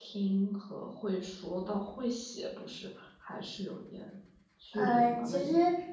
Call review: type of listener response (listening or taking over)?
taking over